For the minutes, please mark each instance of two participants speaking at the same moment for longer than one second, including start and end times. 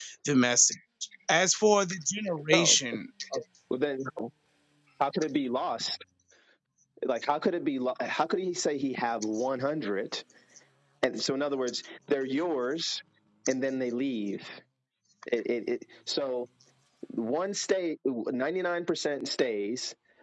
none

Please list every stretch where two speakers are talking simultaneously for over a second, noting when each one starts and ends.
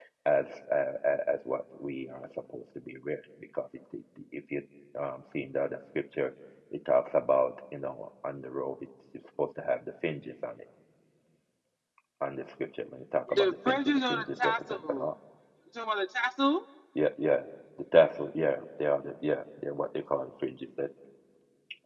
13.3-15.1

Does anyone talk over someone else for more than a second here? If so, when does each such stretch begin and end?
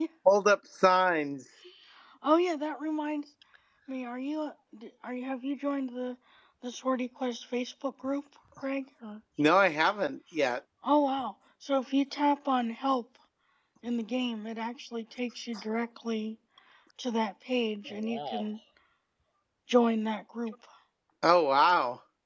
none

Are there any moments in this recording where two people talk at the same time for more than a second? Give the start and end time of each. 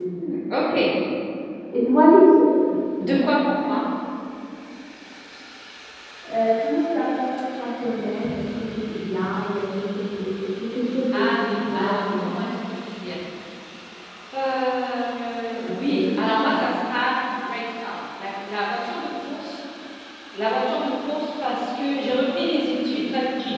11.1-12.5

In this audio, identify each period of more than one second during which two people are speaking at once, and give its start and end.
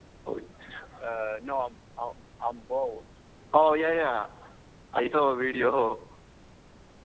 none

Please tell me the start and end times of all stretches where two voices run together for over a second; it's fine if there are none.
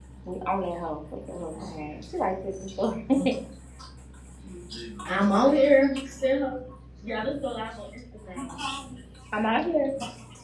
none

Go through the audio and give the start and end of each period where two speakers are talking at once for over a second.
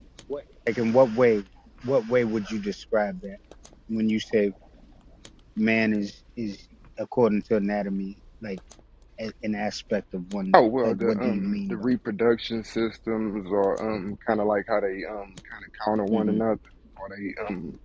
10.5-11.8

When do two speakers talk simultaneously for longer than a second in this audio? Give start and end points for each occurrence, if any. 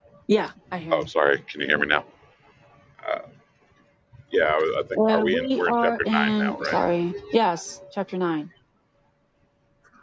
5.0-6.8

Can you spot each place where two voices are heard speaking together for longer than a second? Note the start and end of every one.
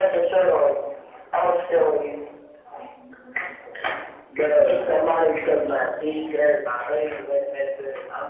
none

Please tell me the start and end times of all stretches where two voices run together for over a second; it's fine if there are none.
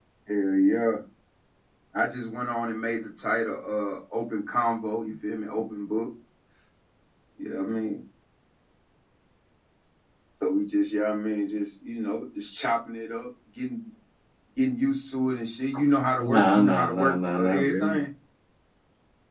16.2-18.0

